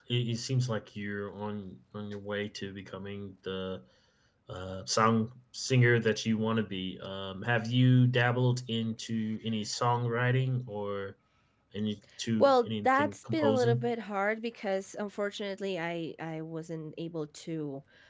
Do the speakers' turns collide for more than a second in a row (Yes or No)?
Yes